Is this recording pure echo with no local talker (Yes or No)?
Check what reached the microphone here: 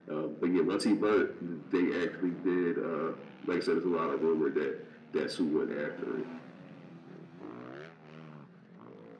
Yes